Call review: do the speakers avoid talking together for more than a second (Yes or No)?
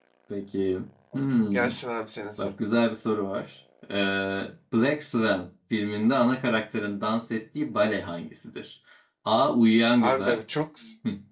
Yes